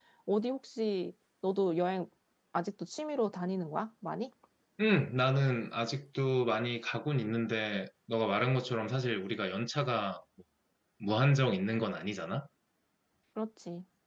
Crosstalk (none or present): none